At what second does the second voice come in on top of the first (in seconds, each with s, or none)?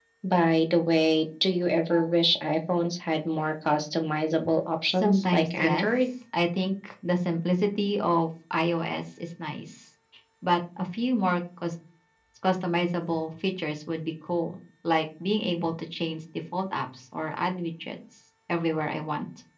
4.9 s